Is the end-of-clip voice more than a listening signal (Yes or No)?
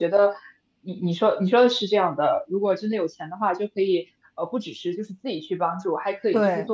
No